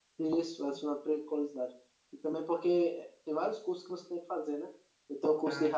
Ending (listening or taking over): listening